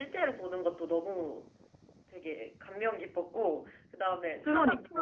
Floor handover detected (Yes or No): No